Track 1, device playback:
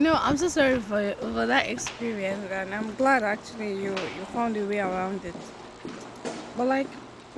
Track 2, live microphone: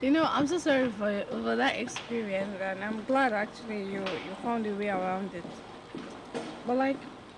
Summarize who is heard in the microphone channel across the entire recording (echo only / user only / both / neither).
echo only